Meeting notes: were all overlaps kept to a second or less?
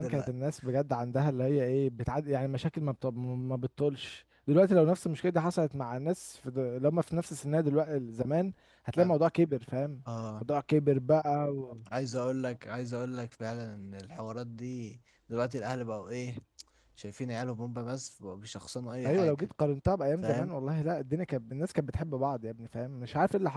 Yes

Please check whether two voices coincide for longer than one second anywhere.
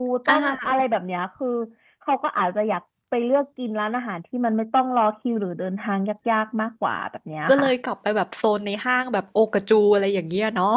No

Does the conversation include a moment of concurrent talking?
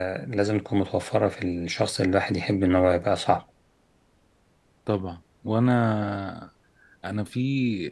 No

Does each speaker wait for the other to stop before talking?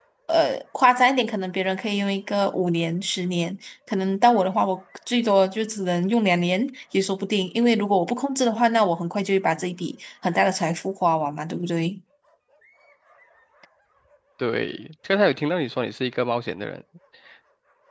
Yes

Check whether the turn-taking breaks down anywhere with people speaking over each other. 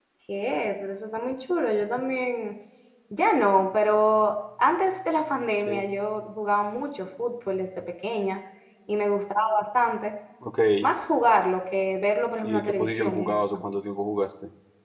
Yes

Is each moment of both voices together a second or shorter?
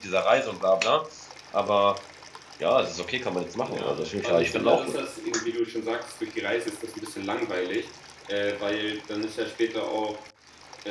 No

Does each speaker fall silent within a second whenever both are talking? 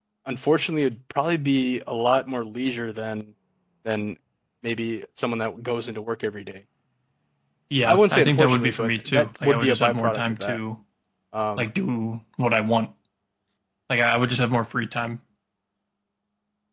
No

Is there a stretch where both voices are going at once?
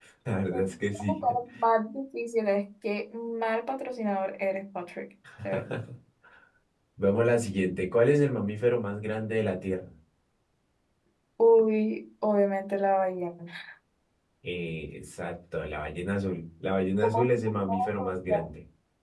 Yes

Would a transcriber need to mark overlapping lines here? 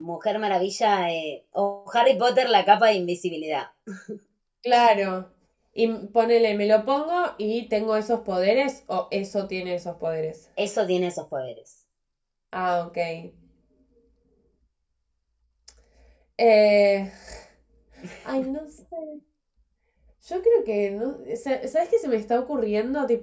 No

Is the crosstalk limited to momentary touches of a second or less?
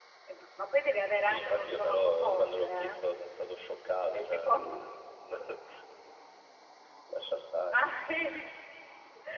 No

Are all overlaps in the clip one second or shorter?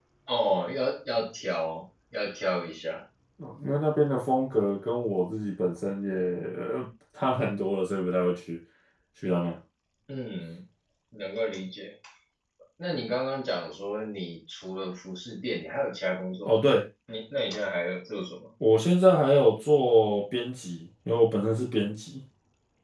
Yes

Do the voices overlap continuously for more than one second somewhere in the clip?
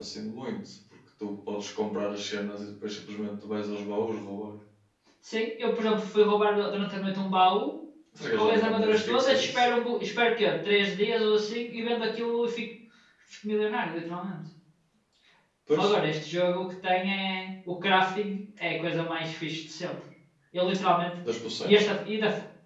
Yes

